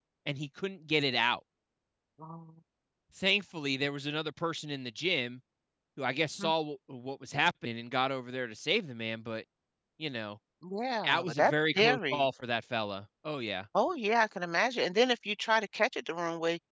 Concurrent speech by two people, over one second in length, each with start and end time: 11.0-12.3

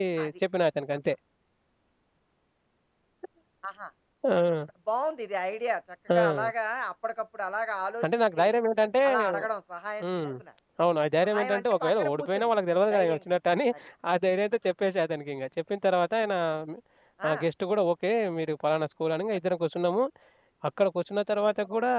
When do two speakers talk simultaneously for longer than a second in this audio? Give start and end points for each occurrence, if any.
11.2-12.5

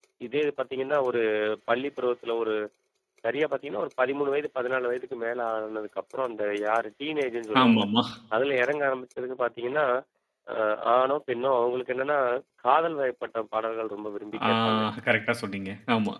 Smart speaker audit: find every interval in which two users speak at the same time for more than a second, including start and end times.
none

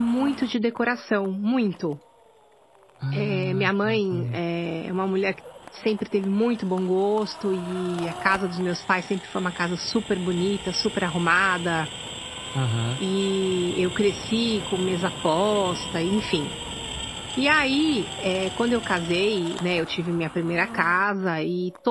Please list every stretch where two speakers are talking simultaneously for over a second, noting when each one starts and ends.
3.1-4.4

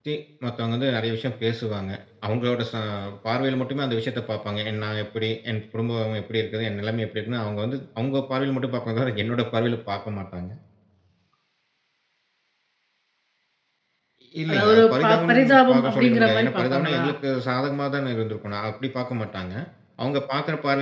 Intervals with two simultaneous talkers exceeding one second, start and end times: 14.5-17.0

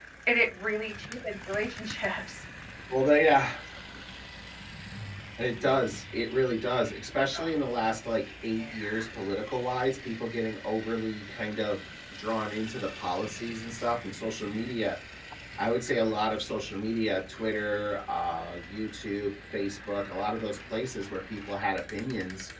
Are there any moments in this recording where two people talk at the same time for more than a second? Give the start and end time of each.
none

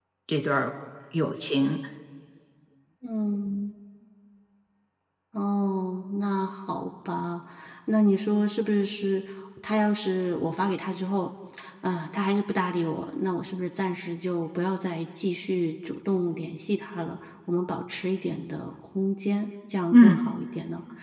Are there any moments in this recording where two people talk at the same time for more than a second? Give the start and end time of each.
none

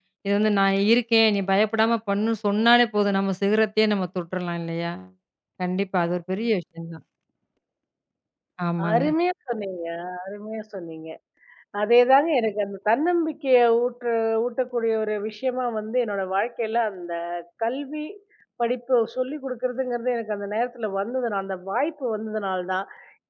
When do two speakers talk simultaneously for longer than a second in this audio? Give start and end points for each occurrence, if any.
none

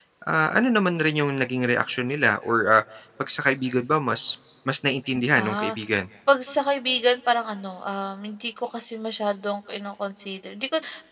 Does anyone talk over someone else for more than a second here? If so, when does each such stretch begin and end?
none

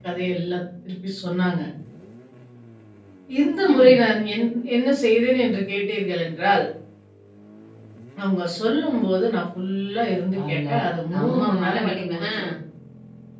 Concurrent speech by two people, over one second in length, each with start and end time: 11.1-12.3

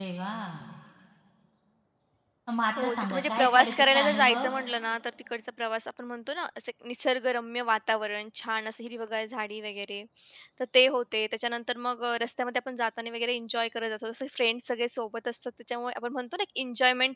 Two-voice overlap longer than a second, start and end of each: 2.8-4.5

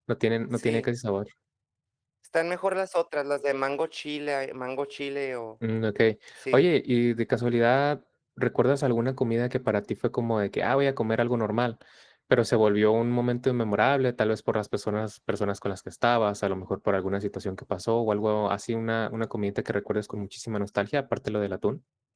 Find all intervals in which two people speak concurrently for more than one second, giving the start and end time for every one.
none

